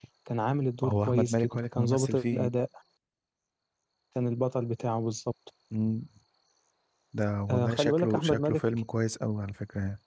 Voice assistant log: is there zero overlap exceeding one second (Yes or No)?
No